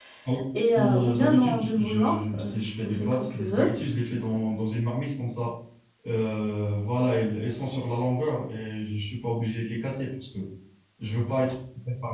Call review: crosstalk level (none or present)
present